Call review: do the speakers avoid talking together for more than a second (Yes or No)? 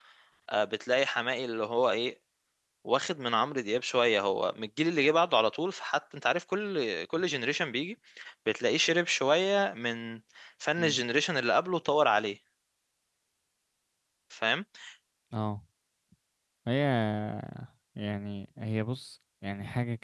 Yes